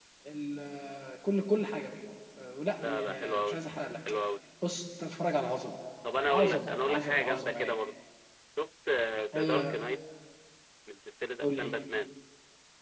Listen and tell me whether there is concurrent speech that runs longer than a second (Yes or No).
Yes